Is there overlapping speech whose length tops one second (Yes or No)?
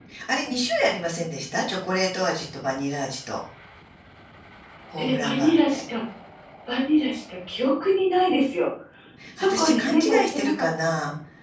Yes